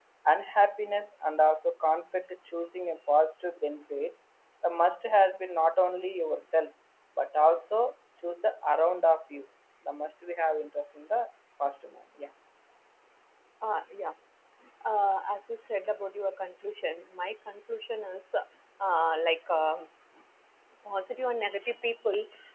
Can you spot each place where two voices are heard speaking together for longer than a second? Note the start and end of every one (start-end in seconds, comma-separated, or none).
none